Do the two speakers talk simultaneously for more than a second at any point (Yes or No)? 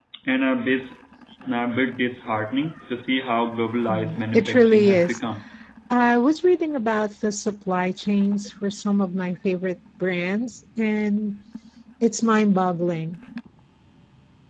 Yes